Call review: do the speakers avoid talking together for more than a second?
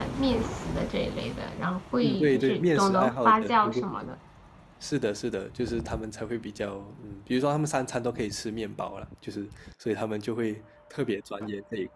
No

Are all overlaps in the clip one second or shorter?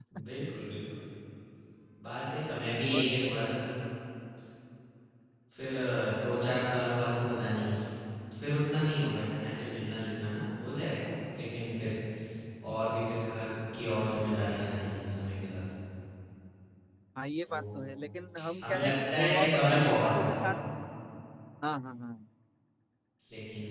No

